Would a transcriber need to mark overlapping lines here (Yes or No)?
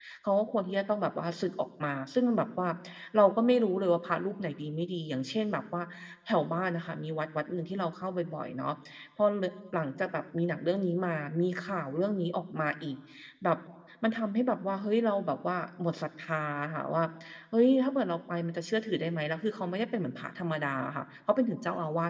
No